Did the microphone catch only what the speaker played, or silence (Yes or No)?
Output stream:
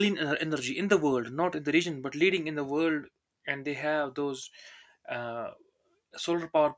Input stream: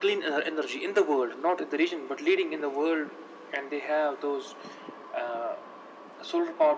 Yes